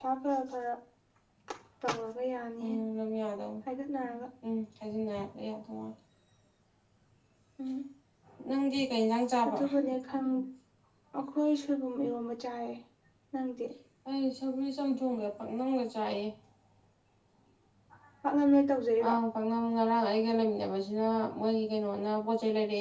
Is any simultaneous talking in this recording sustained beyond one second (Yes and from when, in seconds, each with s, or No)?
No